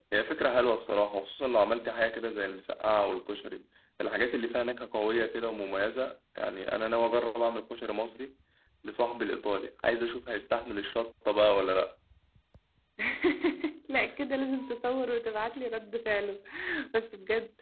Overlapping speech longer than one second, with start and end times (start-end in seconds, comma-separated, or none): none